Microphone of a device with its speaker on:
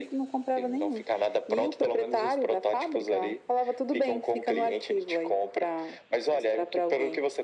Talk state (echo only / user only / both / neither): echo only